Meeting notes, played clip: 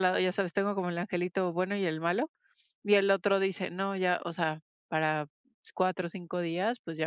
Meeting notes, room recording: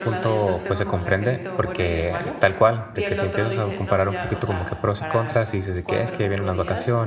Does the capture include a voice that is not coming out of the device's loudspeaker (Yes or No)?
Yes